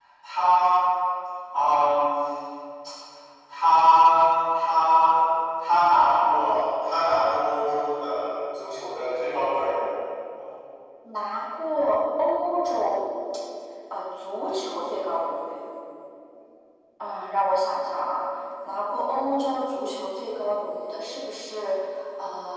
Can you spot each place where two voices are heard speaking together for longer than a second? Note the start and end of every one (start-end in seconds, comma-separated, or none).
none